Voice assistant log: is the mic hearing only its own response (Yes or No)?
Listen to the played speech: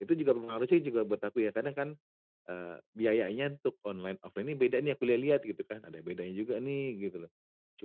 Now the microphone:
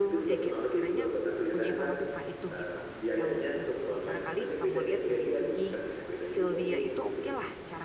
No